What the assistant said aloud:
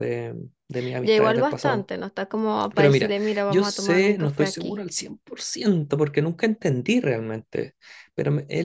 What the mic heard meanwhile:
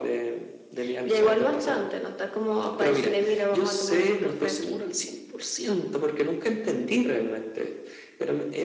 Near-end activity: none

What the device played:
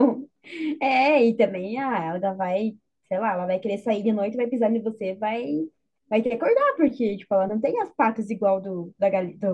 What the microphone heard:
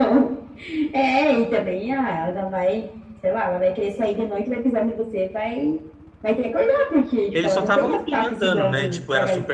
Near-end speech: present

